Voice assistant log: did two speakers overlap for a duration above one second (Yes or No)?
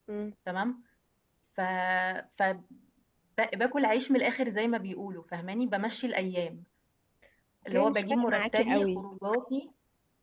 Yes